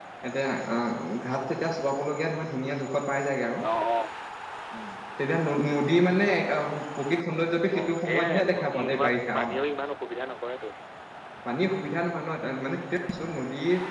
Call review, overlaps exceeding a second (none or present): present